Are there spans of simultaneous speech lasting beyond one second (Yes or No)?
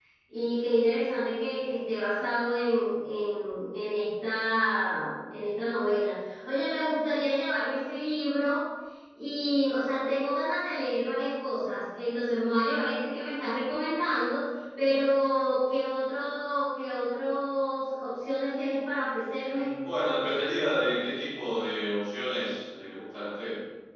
No